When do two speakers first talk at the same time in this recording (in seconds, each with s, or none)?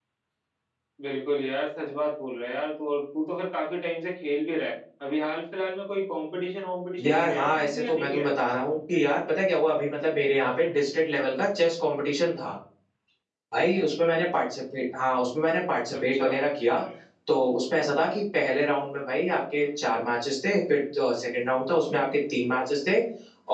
7.0 s